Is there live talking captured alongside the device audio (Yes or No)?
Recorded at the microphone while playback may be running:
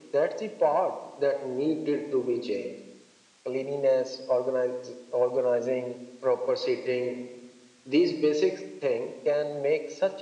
No